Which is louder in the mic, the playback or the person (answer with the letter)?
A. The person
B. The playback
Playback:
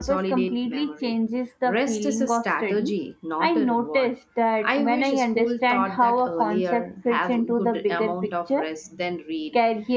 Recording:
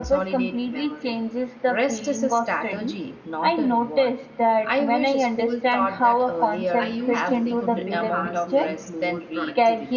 B